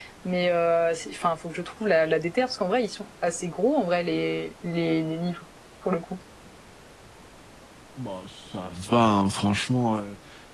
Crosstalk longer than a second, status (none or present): none